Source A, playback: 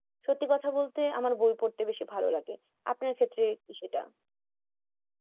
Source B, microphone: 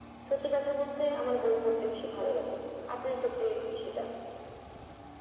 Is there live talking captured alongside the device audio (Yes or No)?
No